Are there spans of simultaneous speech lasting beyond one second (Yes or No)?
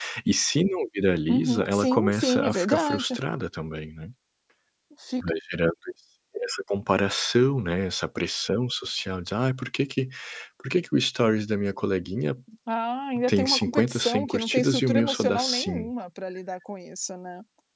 Yes